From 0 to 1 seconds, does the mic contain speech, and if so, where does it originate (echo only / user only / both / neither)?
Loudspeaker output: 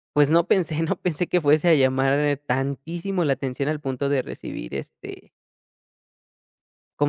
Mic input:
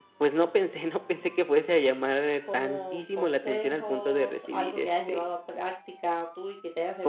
echo only